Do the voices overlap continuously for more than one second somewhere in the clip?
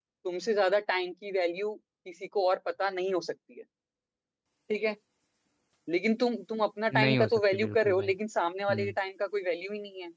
Yes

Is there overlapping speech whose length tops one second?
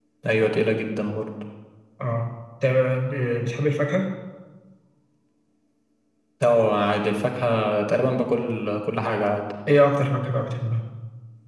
No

